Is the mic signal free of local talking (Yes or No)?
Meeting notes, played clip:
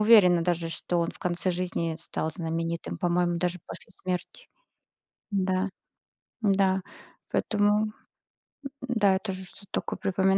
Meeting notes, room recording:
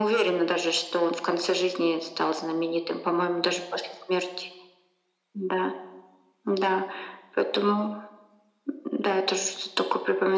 Yes